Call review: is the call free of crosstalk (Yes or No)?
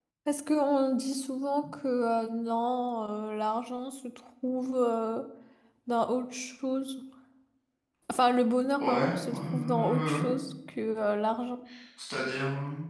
No